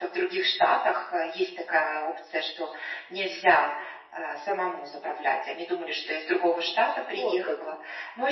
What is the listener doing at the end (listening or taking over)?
listening